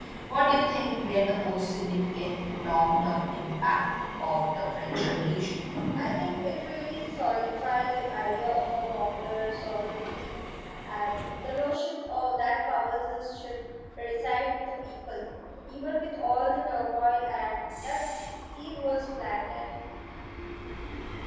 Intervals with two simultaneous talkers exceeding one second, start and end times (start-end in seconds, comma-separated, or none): none